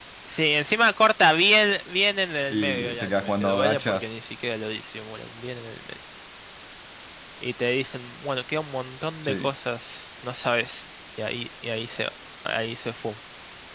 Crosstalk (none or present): present